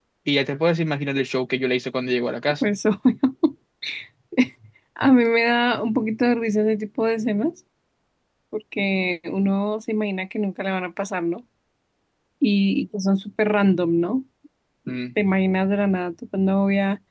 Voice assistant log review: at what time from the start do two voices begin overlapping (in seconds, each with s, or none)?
none